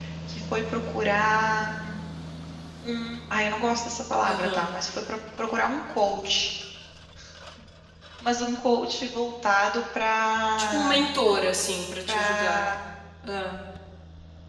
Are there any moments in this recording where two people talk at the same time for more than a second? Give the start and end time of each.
none

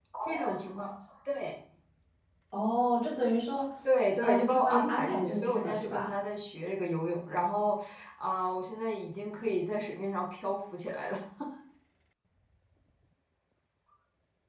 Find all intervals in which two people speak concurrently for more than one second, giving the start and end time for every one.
4.2-6.1

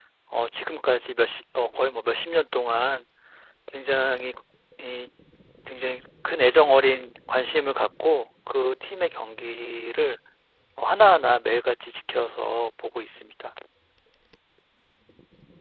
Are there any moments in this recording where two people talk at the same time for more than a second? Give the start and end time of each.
none

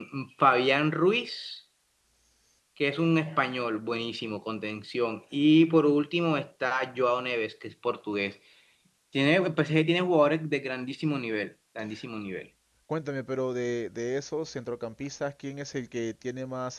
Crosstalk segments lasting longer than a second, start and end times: none

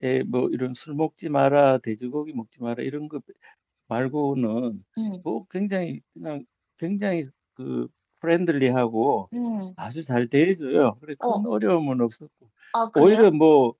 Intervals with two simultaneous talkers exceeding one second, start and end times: none

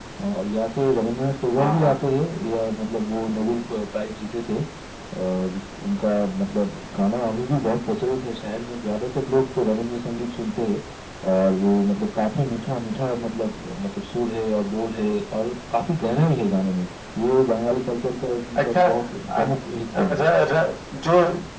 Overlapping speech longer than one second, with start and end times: none

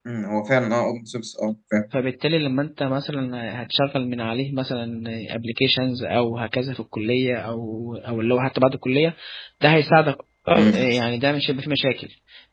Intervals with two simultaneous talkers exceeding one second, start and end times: none

